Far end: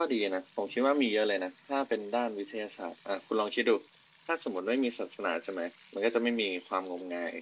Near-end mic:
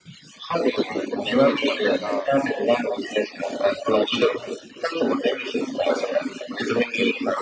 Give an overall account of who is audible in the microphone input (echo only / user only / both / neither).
both